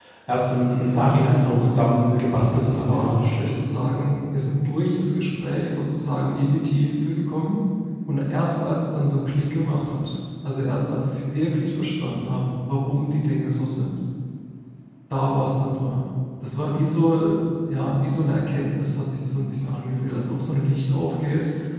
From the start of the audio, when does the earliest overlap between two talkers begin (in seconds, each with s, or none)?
0.8 s